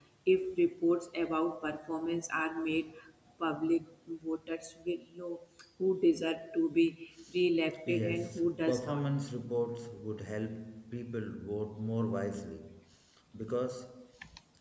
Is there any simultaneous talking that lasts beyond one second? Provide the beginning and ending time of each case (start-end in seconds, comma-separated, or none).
7.9-9.1